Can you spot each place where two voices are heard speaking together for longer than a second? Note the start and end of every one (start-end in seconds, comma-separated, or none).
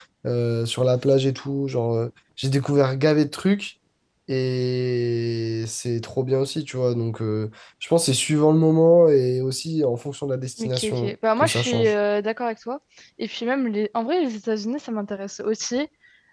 10.6-11.9